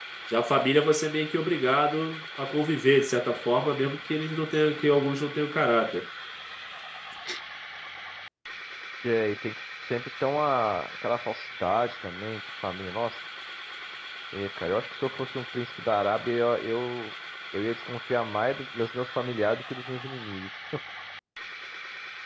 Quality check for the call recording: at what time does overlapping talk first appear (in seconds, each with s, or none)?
none